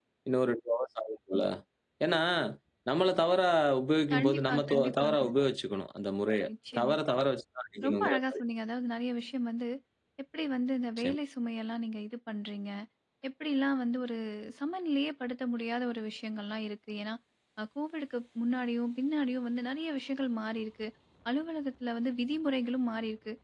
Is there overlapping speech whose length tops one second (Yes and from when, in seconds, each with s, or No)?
Yes, from 4.1 s